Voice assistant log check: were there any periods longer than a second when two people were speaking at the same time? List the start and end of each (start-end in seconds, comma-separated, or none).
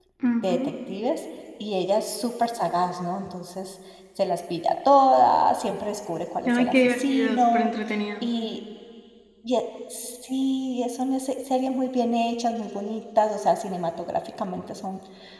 6.4-7.7